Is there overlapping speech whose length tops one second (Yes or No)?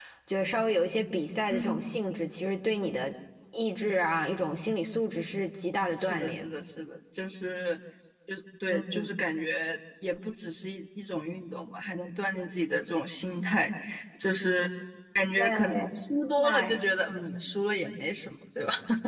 No